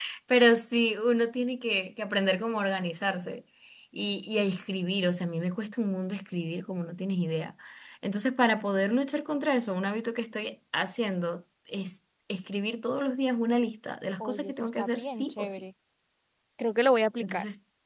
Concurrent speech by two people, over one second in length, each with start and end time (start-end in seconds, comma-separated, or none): 14.2-15.6